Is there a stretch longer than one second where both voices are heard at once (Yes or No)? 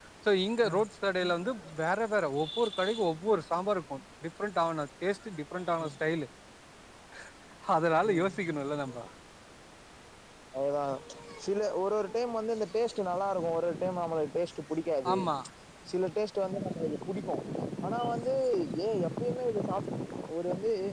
No